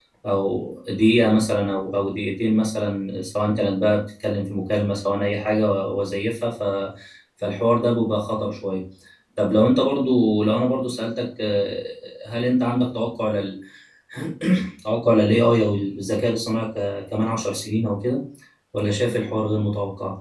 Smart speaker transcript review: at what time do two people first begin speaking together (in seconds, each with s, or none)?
none